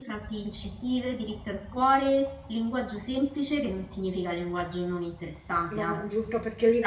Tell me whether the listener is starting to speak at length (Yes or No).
Yes